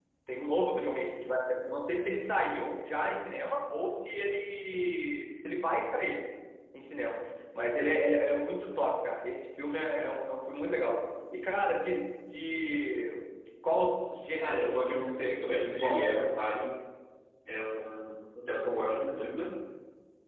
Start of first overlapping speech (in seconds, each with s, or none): 14.4 s